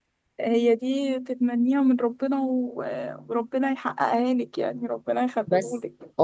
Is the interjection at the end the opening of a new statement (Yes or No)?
Yes